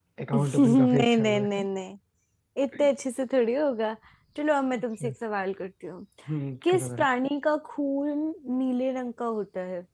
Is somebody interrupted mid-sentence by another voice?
Yes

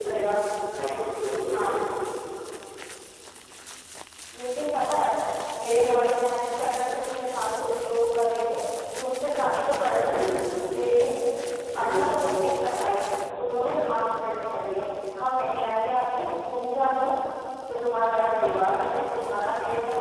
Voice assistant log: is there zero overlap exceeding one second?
Yes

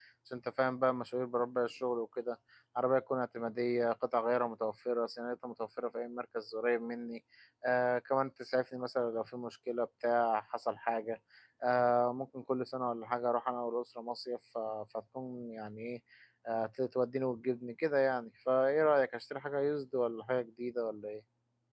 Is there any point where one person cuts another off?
No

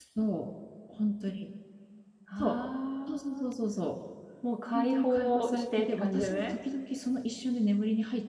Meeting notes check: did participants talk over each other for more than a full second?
Yes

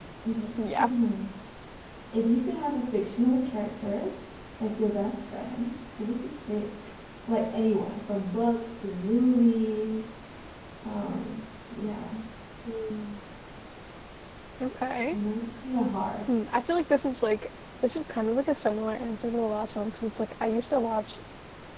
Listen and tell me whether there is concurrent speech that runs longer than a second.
No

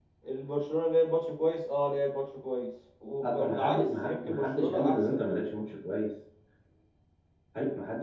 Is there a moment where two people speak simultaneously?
Yes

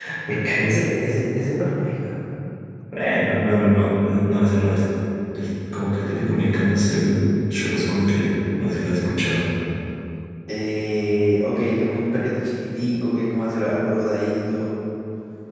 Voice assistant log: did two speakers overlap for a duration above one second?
No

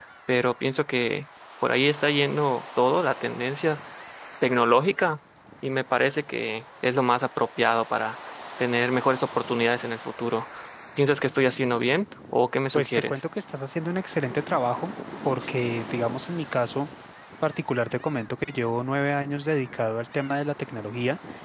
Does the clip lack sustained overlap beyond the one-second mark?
Yes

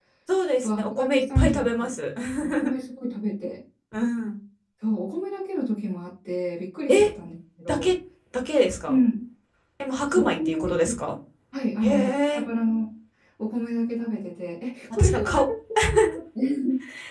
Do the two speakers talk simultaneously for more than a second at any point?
Yes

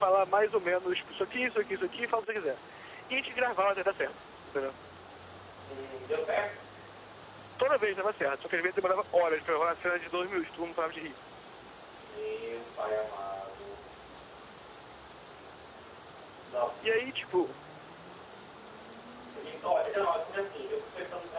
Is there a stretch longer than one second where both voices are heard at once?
No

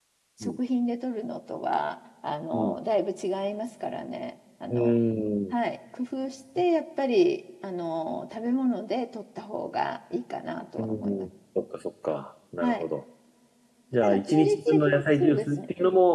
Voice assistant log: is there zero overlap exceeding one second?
No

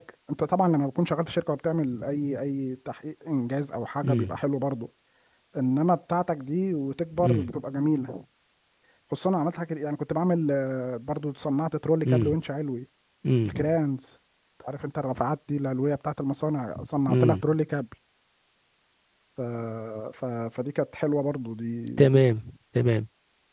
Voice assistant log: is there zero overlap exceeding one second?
Yes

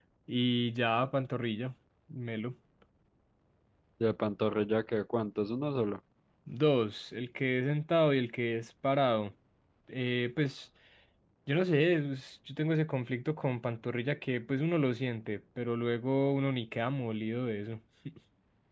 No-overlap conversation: Yes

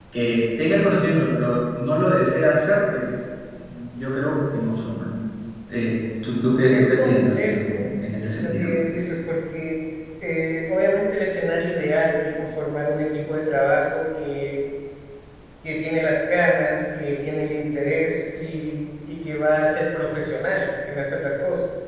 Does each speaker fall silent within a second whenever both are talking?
No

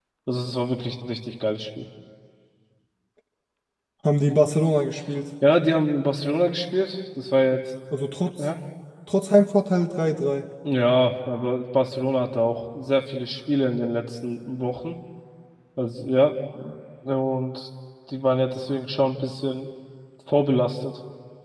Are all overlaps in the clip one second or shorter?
Yes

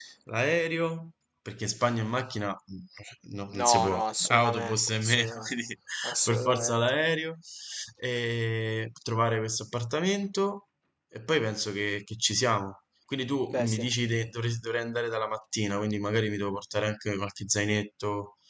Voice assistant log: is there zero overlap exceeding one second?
No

